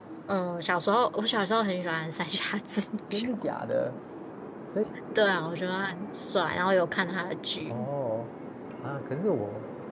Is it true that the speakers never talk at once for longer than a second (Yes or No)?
Yes